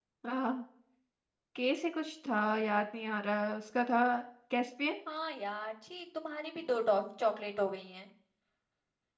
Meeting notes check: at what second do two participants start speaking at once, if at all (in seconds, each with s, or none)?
none